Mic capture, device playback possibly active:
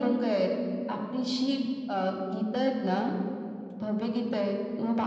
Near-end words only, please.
none

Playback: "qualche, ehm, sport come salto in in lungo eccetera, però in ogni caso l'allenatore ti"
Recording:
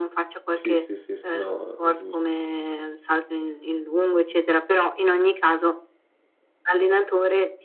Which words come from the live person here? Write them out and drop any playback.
Sì, sì, sì, sì, no, è giu

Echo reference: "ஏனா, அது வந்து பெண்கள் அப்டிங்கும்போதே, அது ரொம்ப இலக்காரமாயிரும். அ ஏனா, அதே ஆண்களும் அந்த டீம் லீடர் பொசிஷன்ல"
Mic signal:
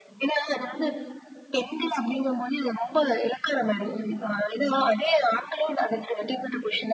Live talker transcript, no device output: none

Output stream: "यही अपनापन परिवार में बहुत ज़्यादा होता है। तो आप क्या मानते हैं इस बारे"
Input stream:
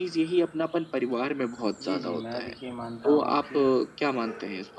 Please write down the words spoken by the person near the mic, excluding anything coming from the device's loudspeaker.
जी, जी। मैं देखिए मानता हूँ कि

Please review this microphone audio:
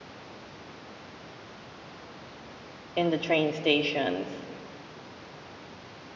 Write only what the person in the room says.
in the train stations.

